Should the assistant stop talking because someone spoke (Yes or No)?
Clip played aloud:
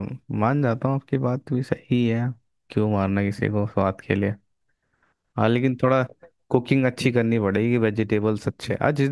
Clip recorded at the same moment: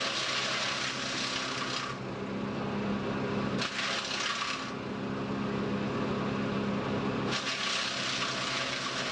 No